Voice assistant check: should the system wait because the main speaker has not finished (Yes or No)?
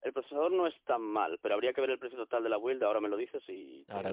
No